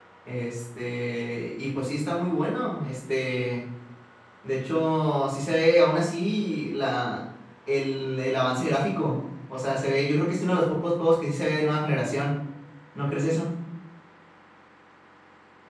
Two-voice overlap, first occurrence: none

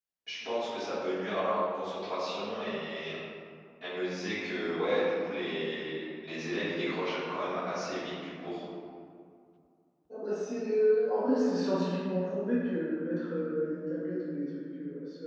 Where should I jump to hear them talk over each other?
none

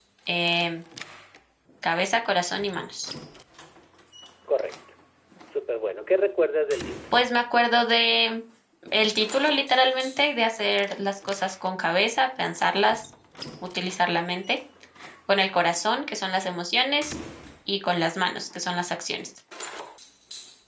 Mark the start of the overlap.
none

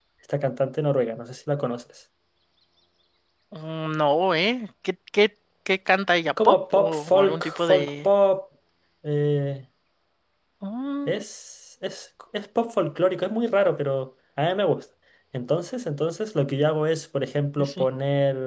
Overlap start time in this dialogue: 6.3 s

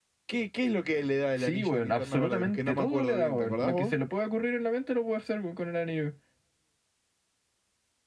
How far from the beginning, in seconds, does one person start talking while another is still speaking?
1.4 s

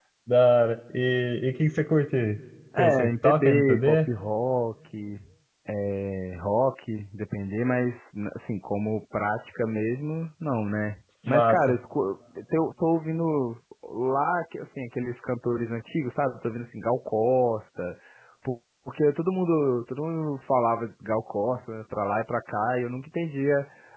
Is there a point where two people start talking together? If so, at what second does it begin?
2.8 s

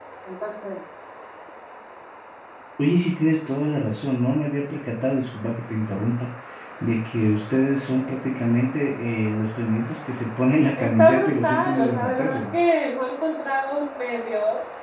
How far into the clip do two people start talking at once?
10.8 s

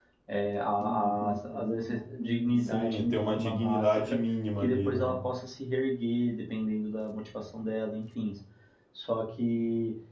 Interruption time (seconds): 2.6 s

